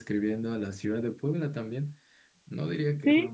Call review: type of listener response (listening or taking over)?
listening